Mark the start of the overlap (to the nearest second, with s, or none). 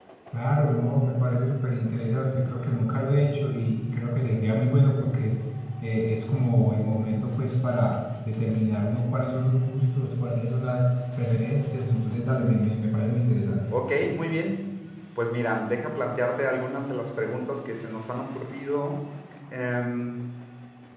none